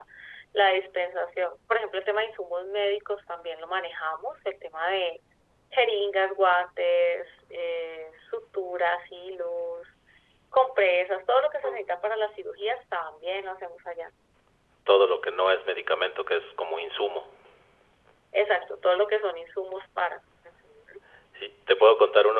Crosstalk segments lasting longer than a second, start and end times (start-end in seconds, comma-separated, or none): none